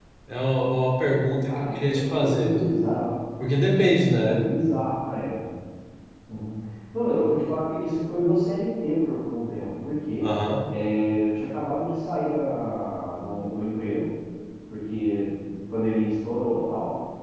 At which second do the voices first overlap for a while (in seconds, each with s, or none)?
1.5 s